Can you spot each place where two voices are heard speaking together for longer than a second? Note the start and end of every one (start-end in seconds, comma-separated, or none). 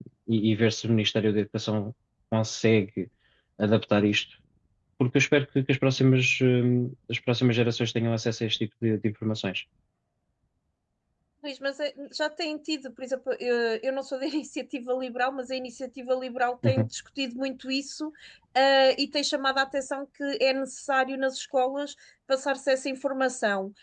none